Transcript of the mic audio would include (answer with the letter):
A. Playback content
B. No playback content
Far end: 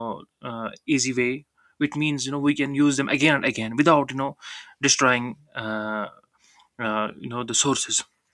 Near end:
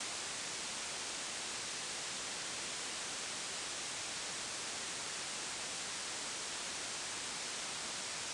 B